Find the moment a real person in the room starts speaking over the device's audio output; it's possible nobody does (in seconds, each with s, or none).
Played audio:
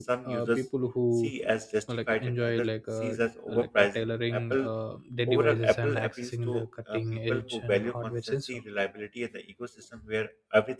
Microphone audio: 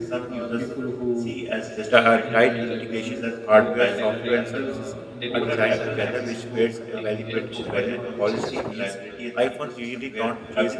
1.9 s